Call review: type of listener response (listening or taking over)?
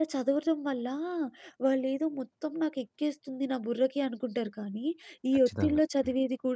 listening